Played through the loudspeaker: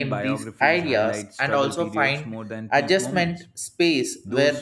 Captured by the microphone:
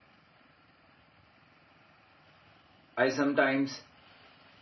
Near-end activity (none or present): present